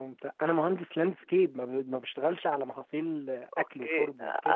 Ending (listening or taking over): taking over